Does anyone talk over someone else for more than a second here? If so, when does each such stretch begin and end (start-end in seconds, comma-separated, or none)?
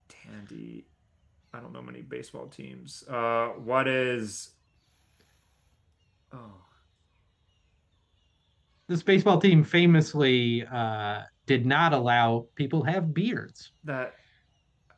none